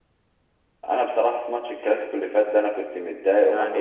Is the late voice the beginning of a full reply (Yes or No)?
Yes